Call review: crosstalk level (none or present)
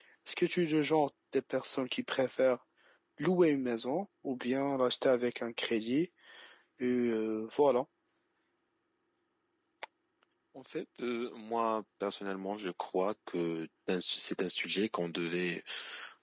none